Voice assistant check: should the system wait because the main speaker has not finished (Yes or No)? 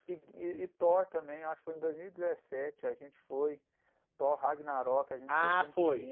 No